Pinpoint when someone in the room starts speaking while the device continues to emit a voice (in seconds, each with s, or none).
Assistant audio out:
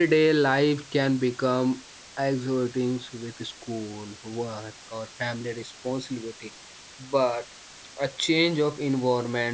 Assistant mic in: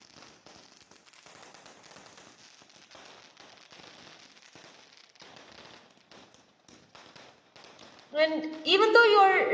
8.1 s